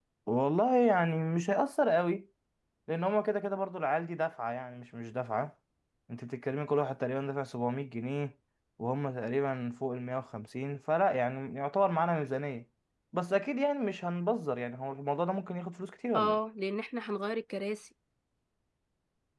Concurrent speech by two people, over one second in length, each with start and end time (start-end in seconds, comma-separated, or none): none